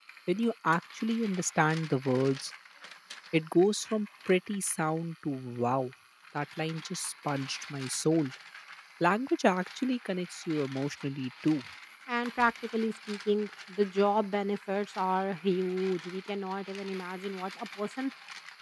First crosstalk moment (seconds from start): none

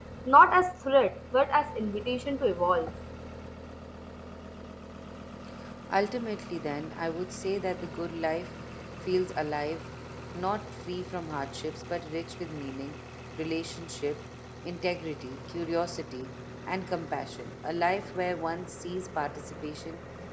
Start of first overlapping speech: none

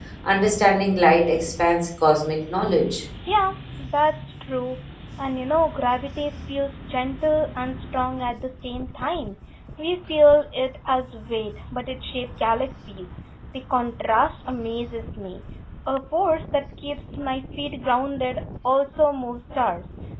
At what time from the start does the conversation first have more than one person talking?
none

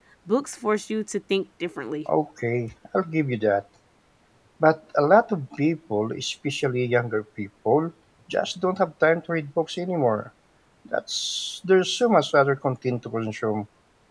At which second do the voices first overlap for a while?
none

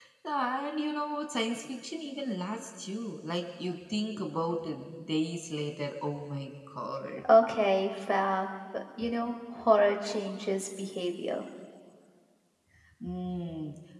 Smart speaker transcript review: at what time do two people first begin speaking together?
none

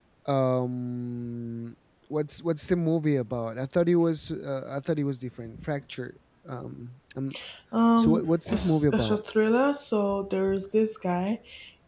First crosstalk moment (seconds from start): 8.0 s

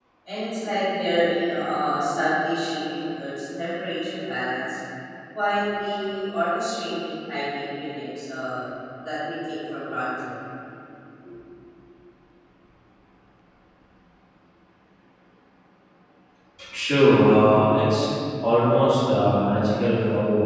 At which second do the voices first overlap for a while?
none

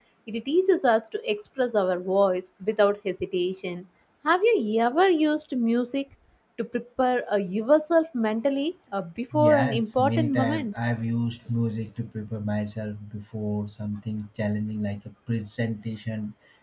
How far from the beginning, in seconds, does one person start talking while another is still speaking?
9.3 s

